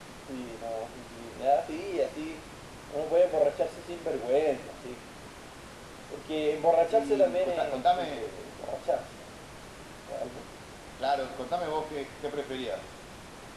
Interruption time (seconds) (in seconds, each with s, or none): 6.9 s